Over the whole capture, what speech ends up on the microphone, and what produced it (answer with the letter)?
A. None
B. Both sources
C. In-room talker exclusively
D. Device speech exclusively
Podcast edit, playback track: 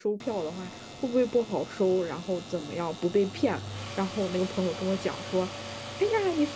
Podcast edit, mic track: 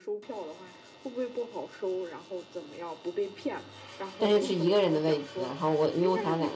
B